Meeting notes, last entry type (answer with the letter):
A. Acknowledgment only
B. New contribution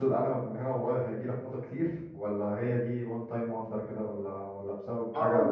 B